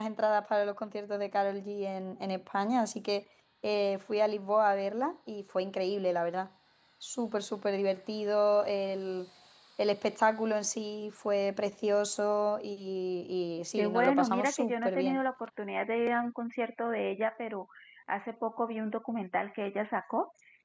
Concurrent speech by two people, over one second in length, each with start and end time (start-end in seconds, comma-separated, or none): 13.8-15.2